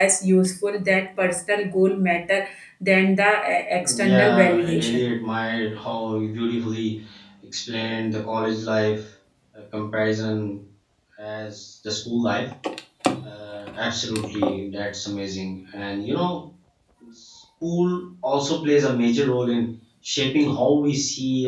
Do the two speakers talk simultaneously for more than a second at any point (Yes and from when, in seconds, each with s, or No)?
Yes, from 3.8 s